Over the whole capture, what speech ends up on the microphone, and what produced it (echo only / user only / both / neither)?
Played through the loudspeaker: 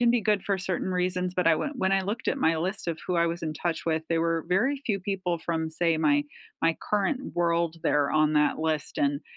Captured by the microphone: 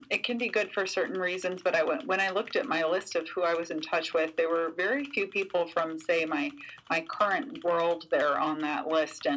echo only